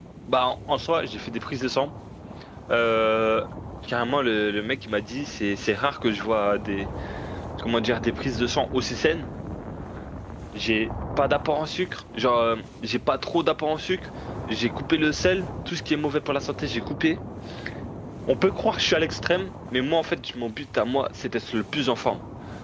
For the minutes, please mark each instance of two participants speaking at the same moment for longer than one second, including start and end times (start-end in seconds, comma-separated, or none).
none